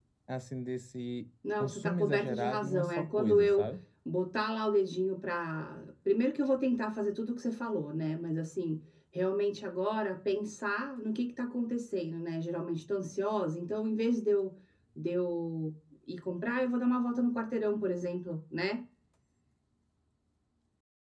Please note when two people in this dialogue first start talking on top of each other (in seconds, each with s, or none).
1.4 s